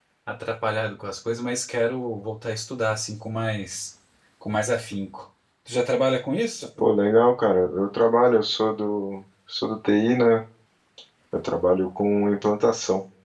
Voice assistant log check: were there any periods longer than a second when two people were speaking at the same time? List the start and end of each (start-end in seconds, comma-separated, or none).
none